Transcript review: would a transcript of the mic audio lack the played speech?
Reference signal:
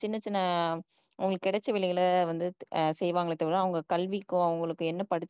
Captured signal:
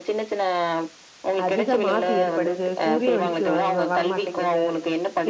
No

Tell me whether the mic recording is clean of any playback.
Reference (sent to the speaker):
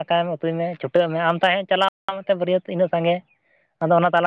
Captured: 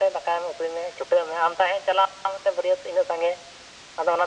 No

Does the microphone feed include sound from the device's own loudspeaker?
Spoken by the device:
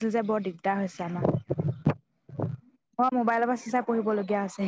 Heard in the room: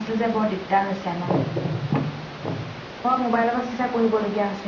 Yes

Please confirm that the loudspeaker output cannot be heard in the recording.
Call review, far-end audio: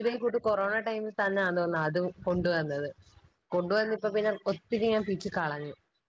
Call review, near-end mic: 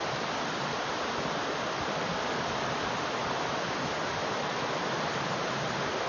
Yes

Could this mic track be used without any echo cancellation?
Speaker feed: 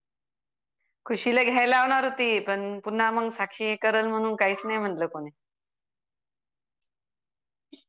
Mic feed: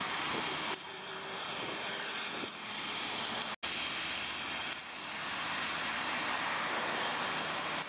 Yes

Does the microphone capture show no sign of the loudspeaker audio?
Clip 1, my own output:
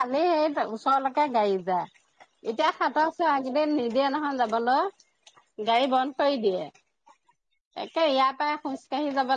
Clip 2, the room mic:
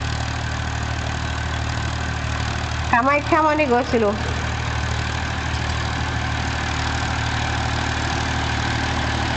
Yes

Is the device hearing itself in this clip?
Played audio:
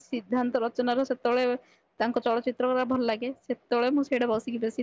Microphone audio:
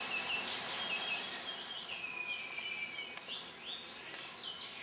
No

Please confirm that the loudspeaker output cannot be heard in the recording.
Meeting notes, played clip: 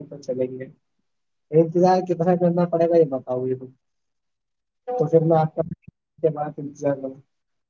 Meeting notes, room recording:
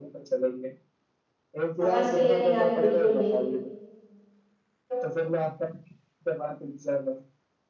No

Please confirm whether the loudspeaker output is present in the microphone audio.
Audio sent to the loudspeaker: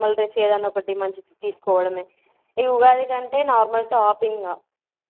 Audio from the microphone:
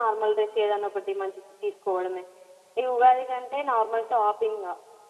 Yes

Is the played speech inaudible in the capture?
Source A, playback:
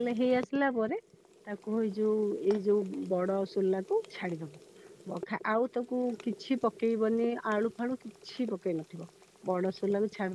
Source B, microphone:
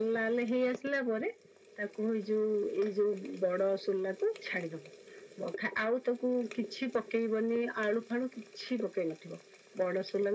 No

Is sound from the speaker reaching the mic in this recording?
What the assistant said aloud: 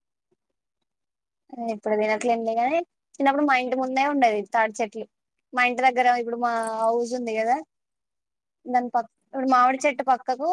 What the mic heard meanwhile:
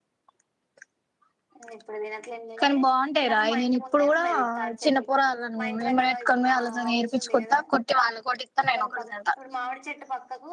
Yes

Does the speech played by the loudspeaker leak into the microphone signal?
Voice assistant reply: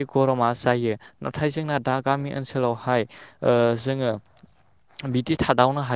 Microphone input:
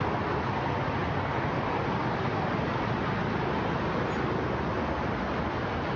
No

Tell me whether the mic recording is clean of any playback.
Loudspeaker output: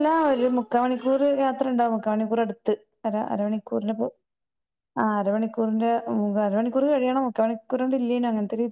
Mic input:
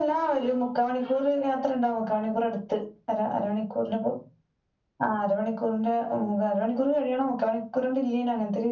No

